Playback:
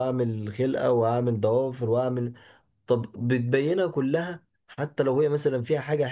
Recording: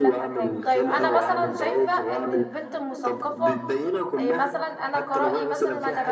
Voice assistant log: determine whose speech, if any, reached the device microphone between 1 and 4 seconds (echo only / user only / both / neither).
both